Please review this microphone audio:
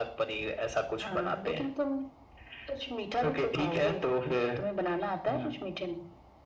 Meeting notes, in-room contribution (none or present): none